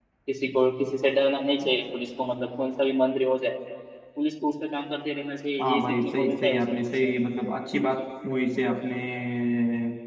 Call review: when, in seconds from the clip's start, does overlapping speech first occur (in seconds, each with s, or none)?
5.6 s